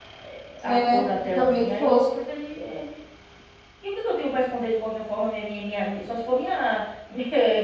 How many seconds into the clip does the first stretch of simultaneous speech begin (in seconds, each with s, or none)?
0.6 s